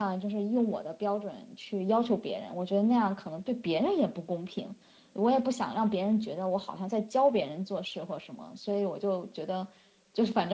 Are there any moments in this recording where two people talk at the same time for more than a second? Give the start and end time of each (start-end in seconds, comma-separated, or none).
none